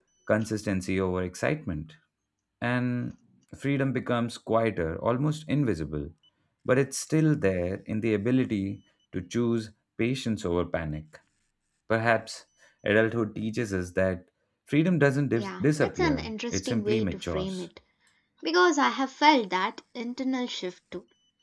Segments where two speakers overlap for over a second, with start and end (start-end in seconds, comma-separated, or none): 15.4-17.6